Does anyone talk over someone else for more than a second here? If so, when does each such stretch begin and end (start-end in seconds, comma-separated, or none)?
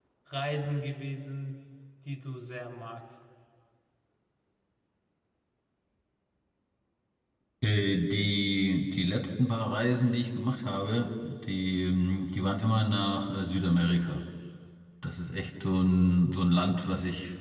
none